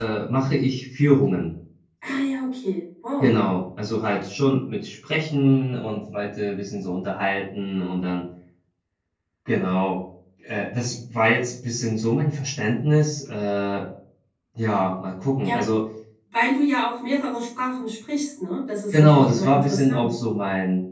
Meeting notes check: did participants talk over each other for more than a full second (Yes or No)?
Yes